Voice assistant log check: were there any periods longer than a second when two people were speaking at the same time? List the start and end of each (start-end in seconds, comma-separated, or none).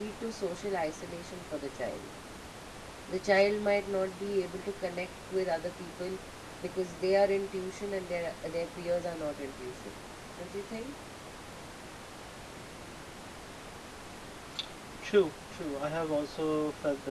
none